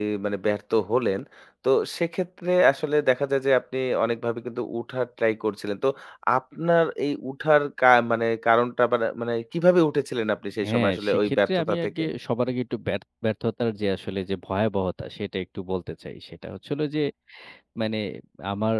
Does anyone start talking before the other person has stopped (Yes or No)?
Yes